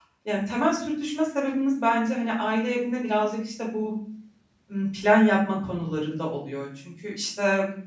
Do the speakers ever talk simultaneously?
No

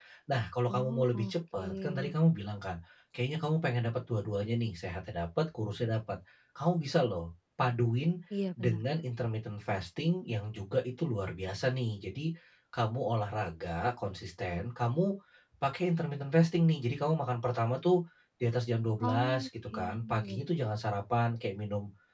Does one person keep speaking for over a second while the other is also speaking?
Yes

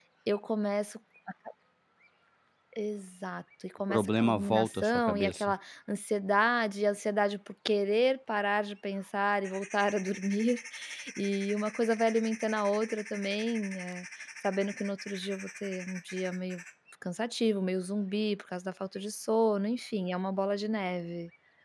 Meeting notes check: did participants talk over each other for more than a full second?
Yes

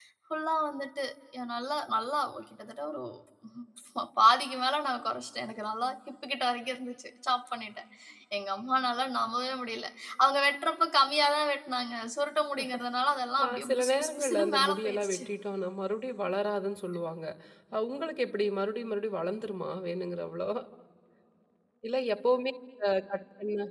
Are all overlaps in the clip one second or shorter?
No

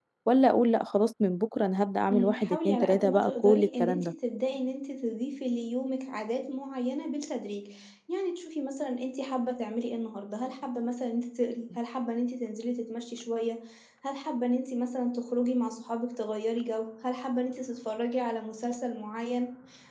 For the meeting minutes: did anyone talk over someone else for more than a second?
Yes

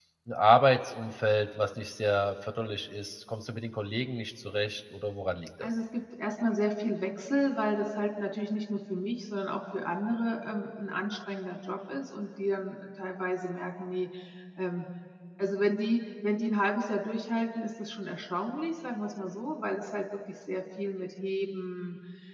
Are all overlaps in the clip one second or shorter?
Yes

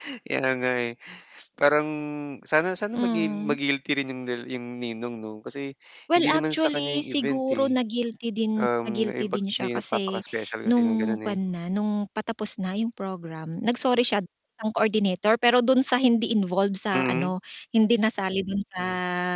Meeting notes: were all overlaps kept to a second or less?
No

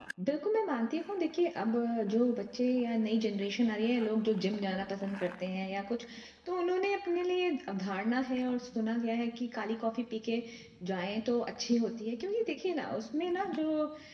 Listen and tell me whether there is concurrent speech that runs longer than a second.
No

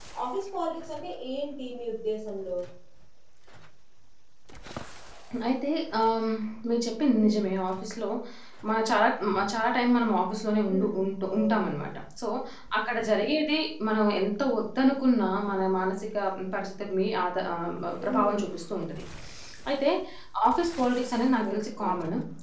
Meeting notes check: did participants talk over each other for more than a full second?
No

